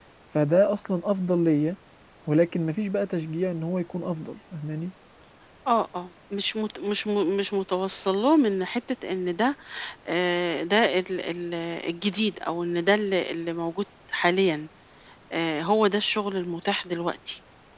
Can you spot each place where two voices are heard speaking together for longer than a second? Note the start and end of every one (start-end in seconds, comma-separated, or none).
none